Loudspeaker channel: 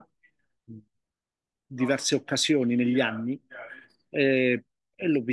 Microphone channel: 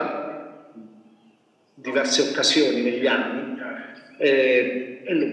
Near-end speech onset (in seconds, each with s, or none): none